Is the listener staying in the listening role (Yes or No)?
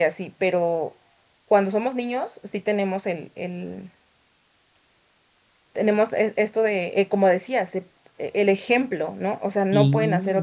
Yes